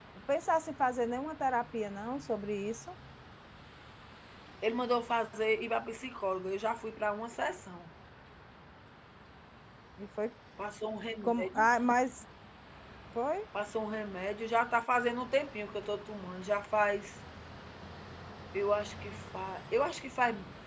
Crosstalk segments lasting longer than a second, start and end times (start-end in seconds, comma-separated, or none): none